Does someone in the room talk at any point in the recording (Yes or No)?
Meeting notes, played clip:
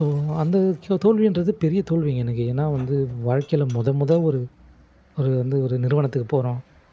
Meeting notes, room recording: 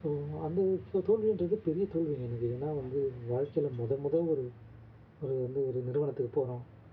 No